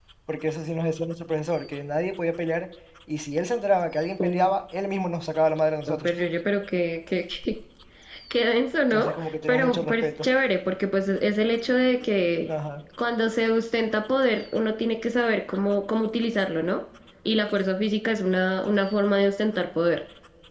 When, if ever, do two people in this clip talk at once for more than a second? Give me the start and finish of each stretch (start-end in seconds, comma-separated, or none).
8.9-10.2